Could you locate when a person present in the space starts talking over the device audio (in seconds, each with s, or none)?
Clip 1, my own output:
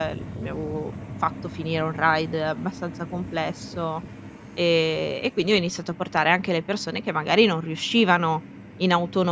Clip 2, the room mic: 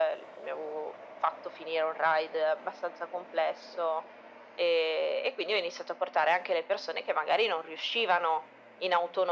none